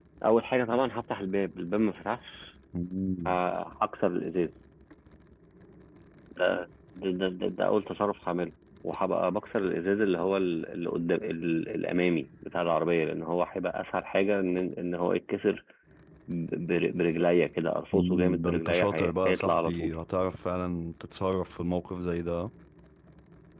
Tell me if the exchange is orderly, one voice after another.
No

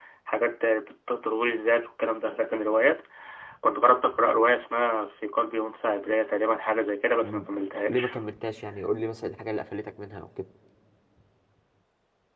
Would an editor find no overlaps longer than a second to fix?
Yes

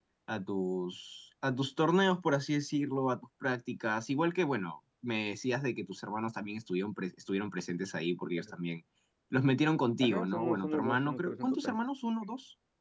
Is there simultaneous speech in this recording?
Yes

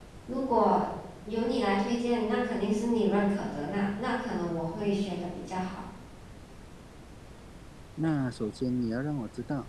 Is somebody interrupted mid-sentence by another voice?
No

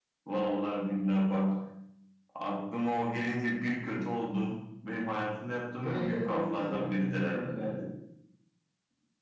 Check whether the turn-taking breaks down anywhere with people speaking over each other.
Yes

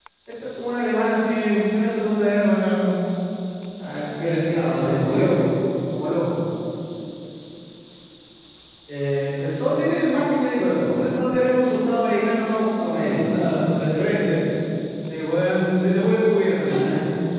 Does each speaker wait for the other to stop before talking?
No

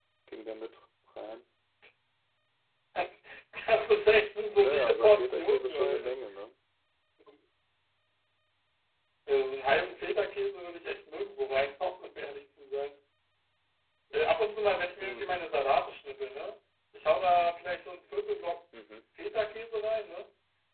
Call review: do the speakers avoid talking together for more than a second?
No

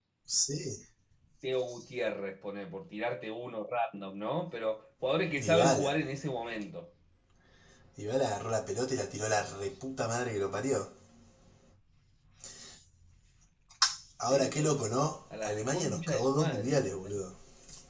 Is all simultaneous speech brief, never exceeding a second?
No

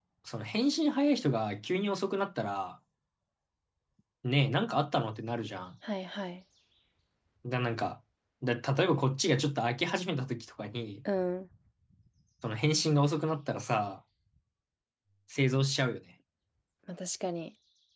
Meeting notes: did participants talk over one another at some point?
No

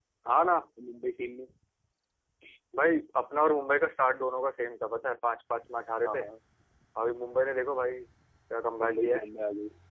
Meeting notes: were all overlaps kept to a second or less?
Yes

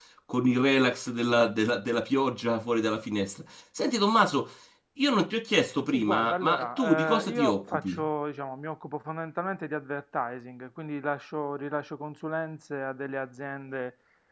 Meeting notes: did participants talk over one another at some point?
Yes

